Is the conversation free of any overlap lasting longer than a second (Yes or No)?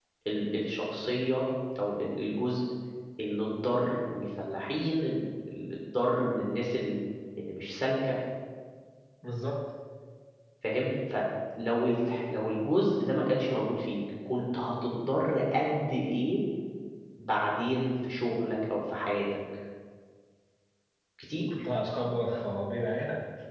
Yes